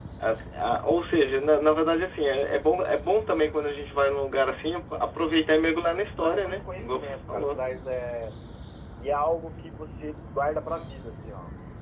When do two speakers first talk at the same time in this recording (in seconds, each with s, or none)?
6.2 s